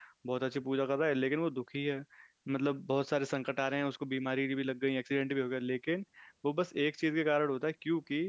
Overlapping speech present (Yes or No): No